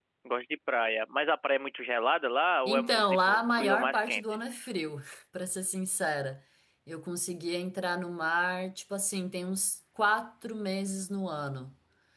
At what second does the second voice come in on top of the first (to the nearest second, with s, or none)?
3 s